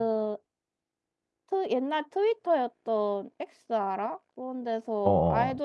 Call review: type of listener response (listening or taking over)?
listening